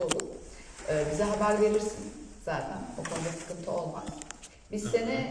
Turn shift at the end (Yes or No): No